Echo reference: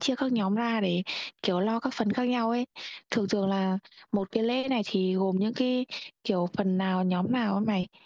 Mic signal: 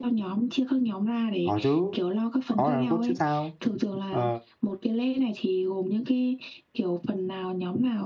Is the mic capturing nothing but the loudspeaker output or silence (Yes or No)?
No